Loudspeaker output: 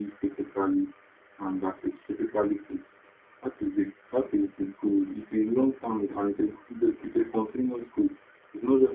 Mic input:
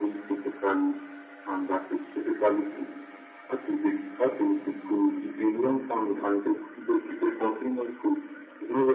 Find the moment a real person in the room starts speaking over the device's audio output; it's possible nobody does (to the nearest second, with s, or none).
none